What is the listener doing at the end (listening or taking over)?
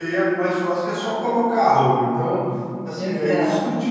listening